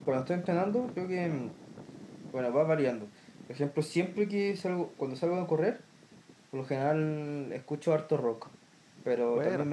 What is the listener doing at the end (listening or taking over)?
listening